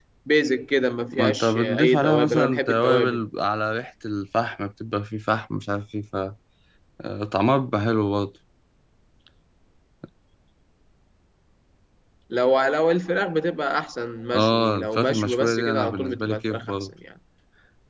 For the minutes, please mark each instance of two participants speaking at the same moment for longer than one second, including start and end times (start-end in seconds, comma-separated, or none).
1.1-3.2, 14.3-16.9